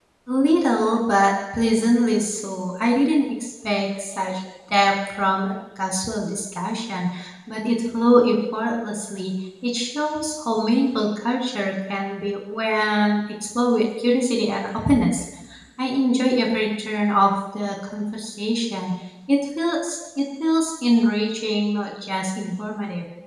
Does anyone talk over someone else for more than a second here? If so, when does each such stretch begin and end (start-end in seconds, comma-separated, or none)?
none